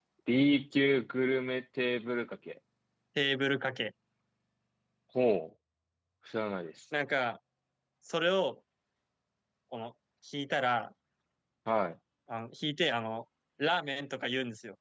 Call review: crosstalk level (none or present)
none